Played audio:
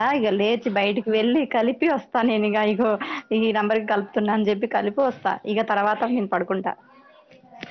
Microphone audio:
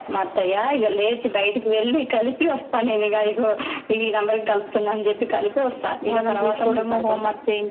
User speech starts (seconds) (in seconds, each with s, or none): 6.1 s